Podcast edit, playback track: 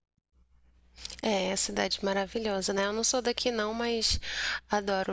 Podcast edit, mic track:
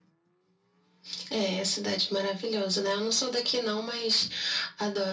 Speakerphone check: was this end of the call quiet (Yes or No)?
Yes